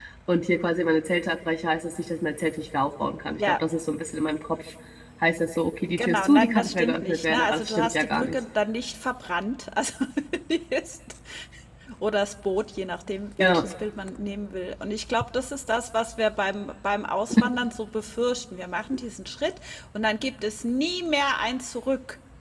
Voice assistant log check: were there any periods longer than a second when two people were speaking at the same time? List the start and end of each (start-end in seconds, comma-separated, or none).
5.9-8.4